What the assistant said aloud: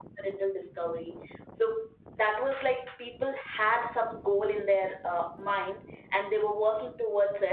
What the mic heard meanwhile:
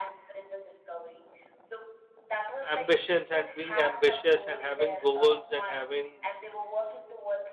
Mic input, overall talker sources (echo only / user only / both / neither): both